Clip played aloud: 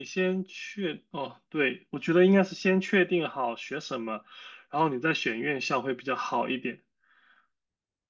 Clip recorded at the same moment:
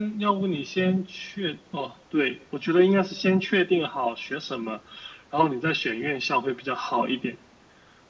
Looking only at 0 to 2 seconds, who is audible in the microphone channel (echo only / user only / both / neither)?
echo only